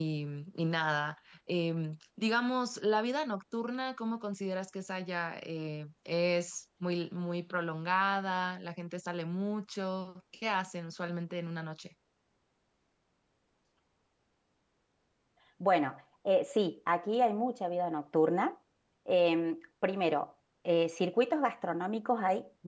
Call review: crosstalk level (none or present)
none